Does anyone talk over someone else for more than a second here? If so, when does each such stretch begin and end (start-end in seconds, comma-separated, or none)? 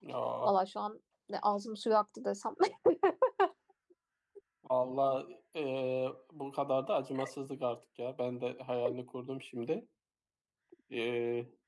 none